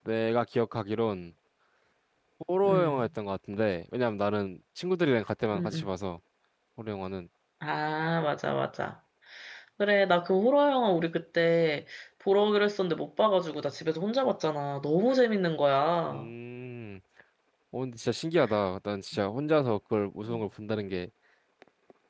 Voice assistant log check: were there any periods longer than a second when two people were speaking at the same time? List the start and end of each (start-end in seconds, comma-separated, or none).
none